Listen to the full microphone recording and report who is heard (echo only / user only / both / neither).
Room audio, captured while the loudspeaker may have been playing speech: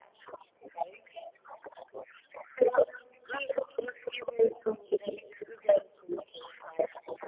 echo only